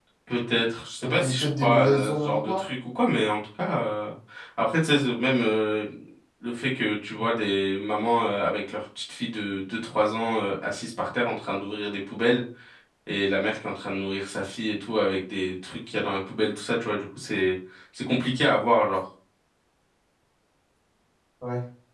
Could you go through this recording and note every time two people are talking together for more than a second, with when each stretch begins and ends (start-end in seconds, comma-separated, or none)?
1.0-2.6